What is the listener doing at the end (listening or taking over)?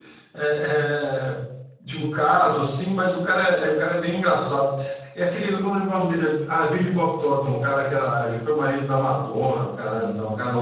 taking over